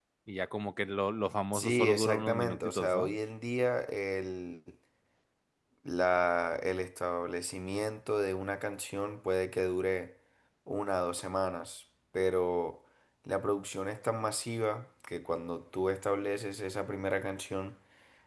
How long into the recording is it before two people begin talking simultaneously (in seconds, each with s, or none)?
1.5 s